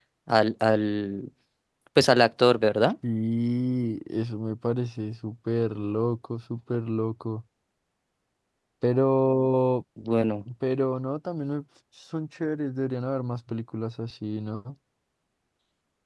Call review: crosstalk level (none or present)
none